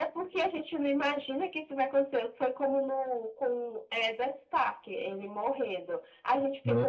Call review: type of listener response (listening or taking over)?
listening